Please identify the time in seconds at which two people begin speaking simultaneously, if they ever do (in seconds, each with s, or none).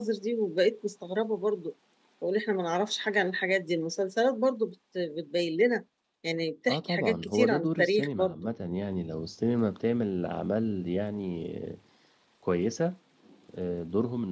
6.7 s